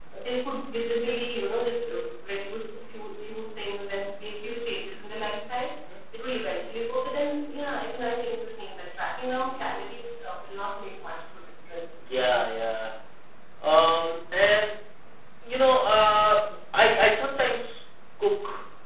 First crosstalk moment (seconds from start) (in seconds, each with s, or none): none